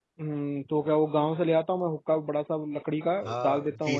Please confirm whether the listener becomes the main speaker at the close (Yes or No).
Yes